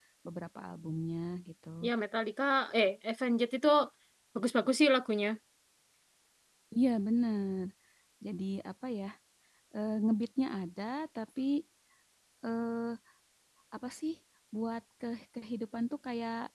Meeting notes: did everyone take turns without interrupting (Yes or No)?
Yes